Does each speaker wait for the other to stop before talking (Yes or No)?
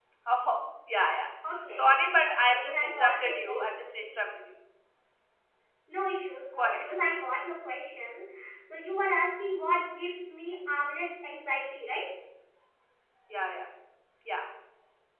No